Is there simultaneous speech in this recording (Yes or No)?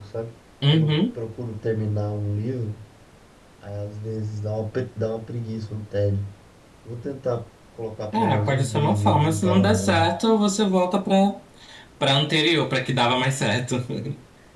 Yes